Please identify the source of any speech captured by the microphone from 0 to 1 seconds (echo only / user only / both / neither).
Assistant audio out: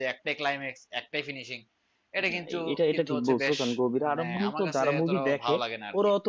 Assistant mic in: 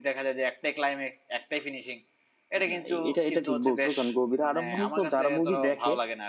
echo only